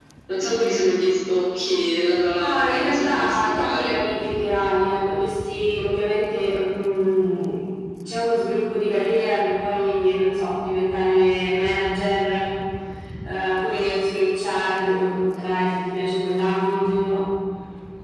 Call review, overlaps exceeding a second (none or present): present